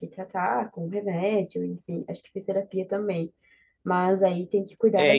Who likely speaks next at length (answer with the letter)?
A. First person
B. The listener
B